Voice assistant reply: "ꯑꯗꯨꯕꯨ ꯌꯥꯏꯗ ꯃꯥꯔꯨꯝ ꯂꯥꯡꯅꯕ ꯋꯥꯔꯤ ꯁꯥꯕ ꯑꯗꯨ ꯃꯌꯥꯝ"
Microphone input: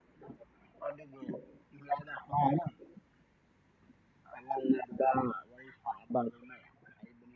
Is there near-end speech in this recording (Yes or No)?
No